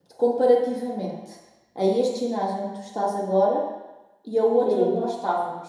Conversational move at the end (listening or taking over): listening